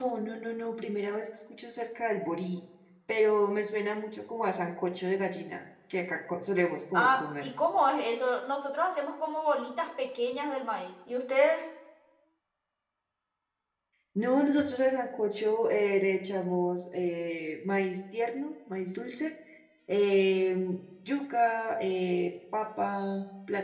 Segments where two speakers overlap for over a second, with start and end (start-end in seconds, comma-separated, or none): none